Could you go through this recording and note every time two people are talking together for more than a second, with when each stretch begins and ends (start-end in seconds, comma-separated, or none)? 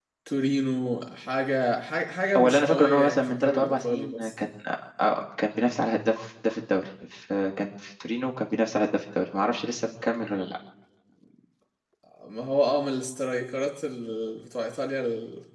2.4-4.3